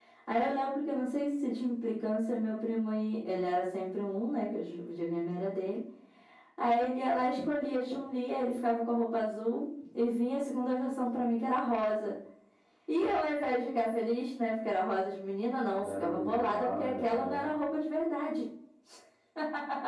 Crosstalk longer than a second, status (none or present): present